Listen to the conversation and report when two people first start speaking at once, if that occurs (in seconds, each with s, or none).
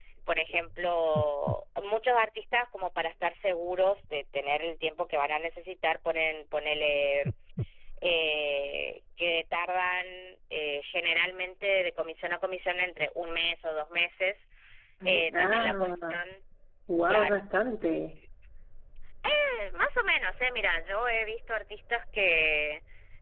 15.0 s